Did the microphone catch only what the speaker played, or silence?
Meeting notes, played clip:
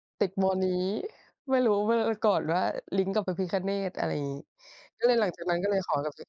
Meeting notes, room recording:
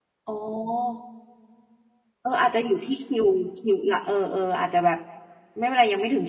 No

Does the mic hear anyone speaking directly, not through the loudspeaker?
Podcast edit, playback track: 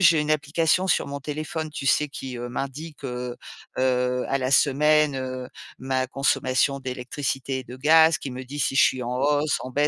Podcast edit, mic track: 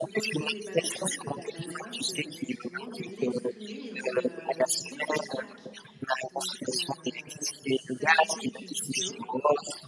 Yes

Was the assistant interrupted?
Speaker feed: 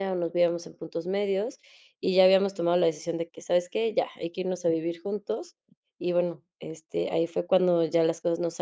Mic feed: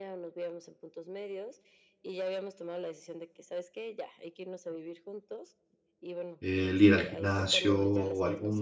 Yes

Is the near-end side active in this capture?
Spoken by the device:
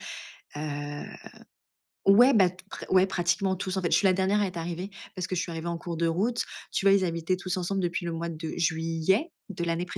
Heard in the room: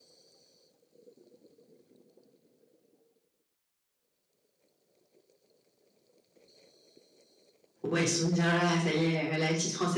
Yes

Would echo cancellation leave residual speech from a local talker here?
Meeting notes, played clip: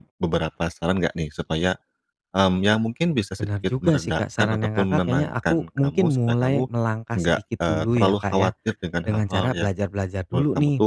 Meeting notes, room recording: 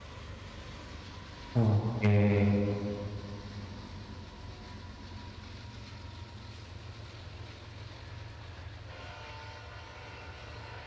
Yes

